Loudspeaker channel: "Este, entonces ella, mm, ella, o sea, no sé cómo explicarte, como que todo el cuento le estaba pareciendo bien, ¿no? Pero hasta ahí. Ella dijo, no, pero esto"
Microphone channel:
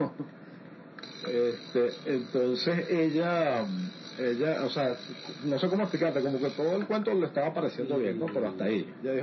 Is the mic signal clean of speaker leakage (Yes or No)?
No